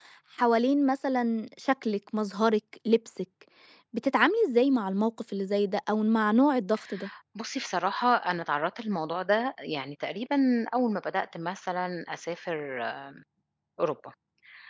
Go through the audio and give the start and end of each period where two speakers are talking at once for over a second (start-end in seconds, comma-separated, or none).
none